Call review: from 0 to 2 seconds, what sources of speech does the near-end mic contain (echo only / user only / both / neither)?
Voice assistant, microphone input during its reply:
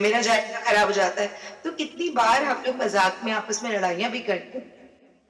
echo only